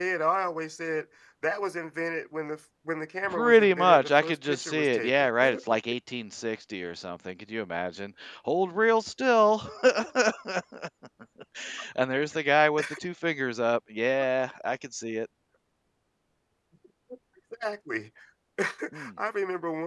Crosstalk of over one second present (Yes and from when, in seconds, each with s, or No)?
Yes, from 3.2 s